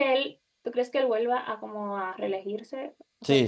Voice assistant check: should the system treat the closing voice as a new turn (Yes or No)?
Yes